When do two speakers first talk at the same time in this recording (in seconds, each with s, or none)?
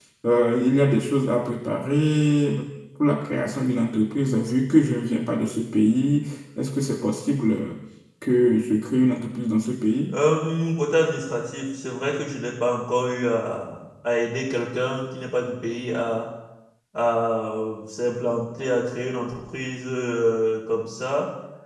none